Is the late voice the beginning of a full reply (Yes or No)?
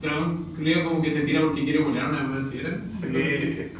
Yes